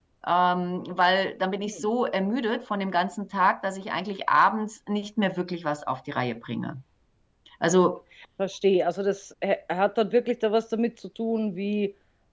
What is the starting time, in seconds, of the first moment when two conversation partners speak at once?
none

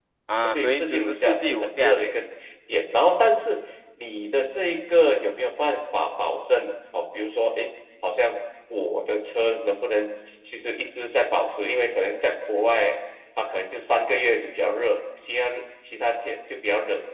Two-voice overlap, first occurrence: 0.5 s

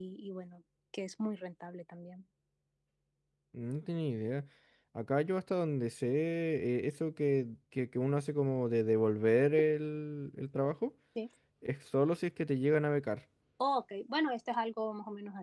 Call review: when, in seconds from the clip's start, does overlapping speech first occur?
none

